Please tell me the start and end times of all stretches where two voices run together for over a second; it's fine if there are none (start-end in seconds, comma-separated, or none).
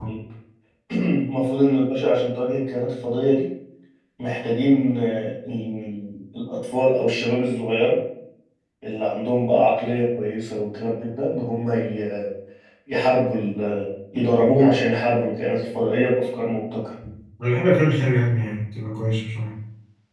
none